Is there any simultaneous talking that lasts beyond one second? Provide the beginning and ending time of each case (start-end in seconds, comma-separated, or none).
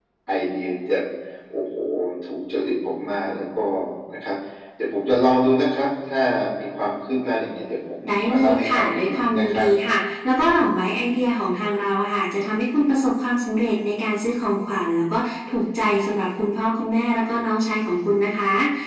8.1-9.7